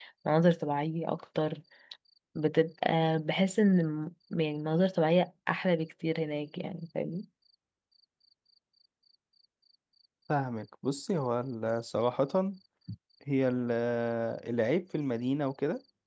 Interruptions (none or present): none